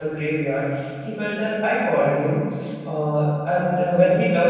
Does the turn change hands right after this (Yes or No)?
No